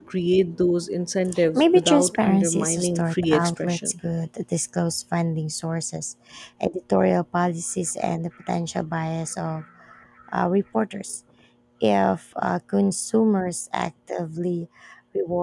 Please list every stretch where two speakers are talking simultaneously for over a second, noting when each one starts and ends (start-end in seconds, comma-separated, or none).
1.5-3.9